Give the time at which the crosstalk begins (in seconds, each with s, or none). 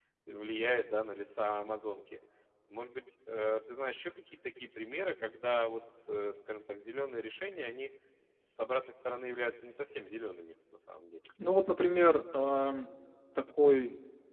none